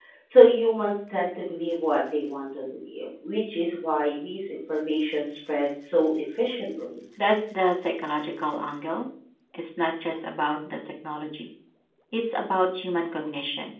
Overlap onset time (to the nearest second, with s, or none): none